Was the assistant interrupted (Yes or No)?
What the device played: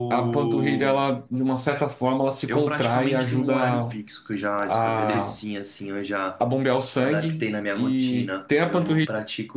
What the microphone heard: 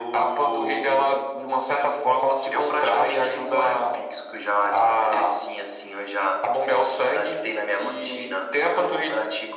No